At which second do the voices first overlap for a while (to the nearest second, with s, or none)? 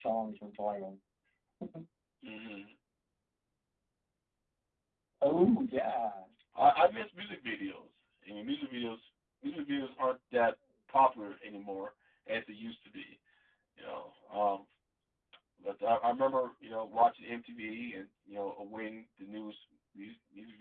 none